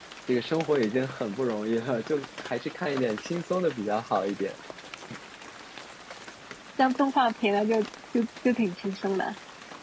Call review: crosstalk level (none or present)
none